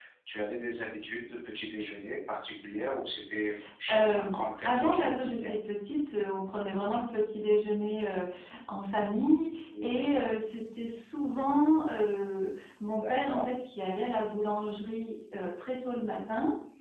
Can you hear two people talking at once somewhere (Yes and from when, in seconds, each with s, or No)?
Yes, from 3.9 s